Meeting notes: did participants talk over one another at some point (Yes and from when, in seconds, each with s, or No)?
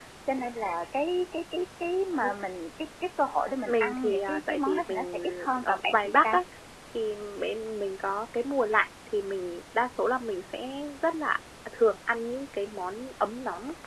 Yes, from 3.6 s